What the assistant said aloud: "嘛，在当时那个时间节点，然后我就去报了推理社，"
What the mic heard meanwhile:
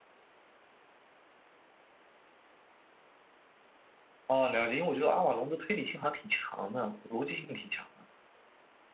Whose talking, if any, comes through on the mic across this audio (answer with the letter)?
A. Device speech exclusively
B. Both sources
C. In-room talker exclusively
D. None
C